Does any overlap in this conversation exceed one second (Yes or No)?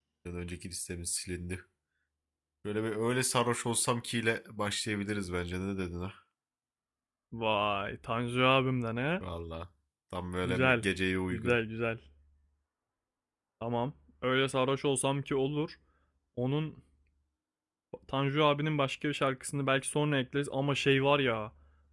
No